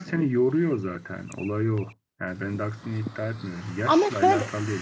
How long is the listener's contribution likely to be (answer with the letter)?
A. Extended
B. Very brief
B